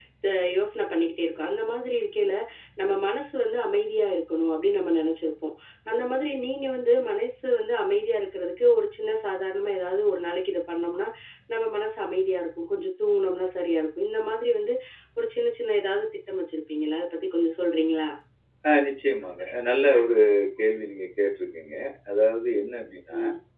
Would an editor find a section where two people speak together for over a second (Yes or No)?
No